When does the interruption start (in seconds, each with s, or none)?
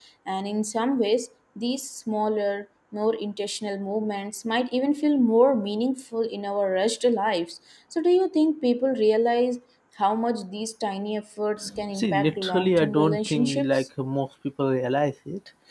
11.9 s